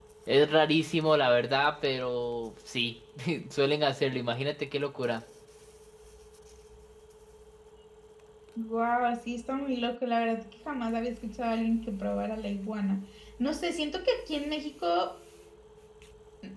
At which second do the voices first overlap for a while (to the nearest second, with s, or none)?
none